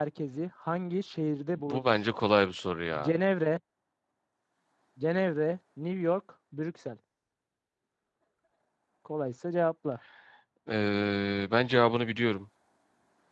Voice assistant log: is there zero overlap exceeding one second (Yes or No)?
Yes